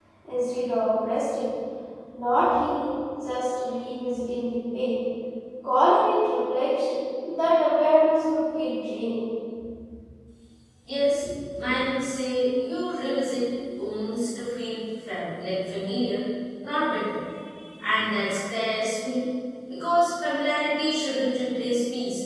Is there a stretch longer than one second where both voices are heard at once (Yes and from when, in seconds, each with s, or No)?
No